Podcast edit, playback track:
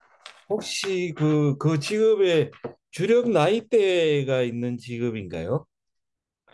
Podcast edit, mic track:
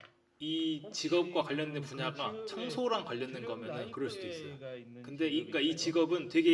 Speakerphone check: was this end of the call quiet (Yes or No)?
No